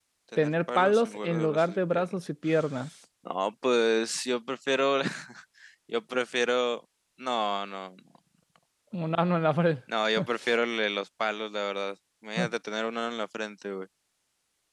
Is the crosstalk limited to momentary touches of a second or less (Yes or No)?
No